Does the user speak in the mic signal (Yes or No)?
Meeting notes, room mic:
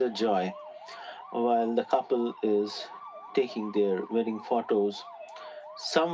No